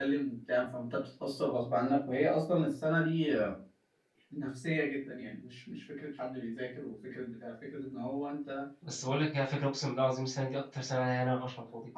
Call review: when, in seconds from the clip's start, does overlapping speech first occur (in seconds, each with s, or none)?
none